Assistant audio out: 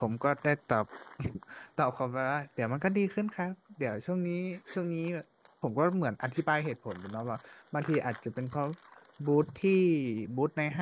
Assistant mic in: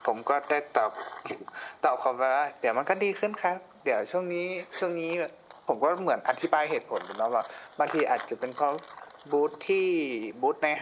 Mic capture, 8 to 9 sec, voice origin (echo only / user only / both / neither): echo only